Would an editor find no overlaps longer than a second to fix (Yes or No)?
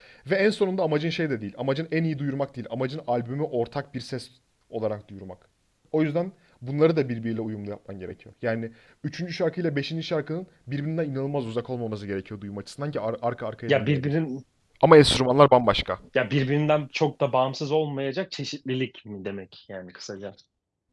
Yes